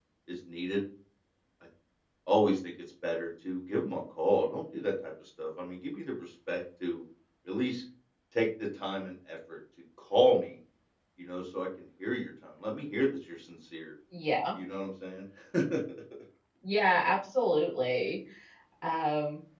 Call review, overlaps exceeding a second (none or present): none